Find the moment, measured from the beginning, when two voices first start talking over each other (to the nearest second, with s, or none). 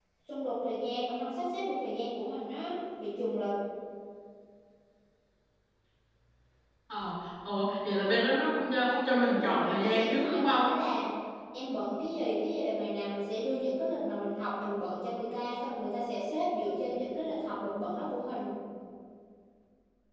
9 s